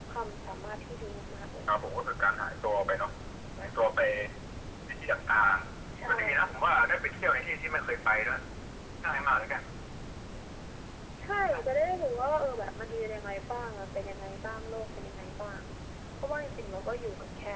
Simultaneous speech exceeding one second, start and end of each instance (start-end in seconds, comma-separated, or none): none